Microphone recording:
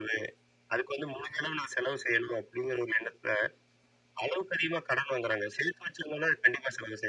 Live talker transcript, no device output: none

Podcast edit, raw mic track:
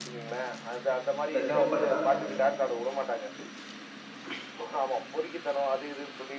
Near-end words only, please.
அந்த சிம்பு பாட்டு தாங்க.

